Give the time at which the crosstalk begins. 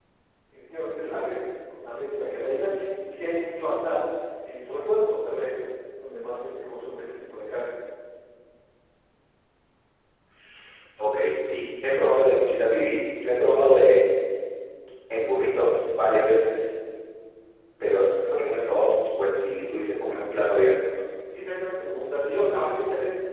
none

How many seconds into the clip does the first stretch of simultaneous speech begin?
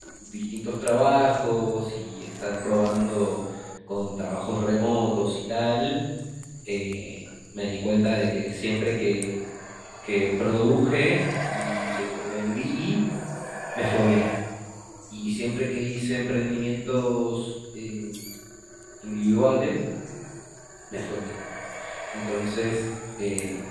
none

